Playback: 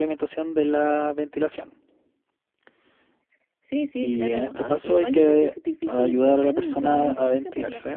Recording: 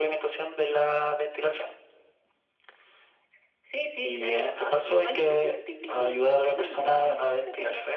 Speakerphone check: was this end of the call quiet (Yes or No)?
Yes